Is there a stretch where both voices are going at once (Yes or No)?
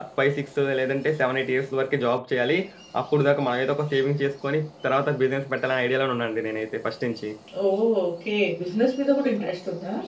No